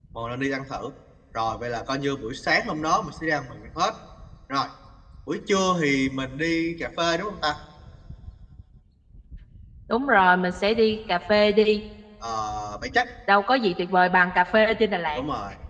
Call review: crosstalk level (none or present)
none